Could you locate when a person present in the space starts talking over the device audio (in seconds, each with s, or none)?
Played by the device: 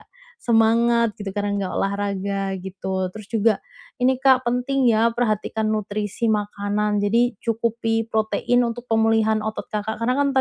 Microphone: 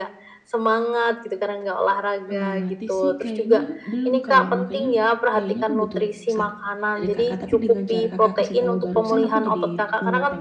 2.2 s